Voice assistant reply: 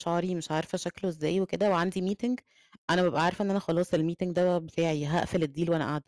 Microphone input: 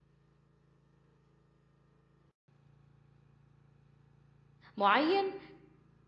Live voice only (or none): معيّن،